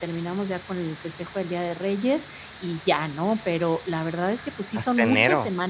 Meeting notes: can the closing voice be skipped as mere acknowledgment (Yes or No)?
Yes